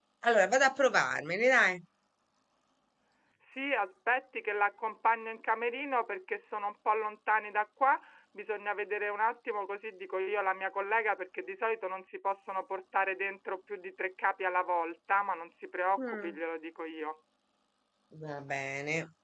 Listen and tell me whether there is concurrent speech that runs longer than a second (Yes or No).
No